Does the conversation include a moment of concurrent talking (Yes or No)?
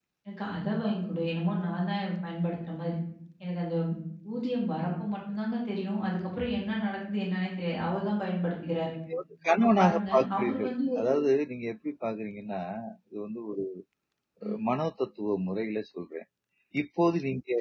Yes